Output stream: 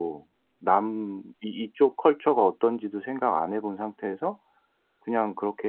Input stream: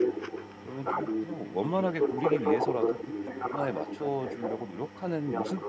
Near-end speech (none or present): present